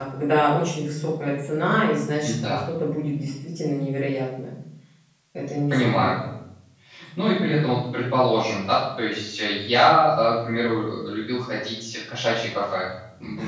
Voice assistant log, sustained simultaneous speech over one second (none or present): none